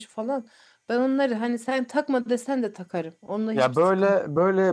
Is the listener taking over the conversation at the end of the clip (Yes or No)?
Yes